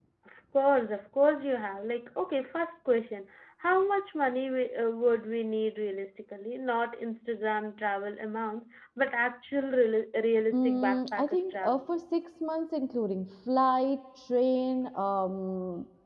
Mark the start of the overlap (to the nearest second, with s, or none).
11 s